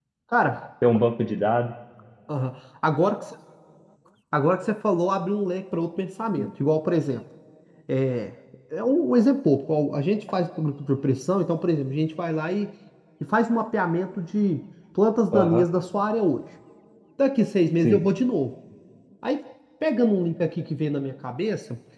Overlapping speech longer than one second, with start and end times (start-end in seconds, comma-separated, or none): none